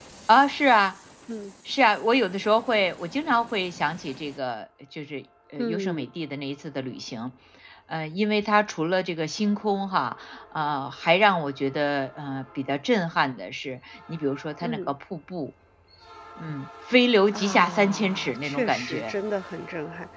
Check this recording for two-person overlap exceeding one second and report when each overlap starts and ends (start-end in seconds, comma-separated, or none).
17.3-19.1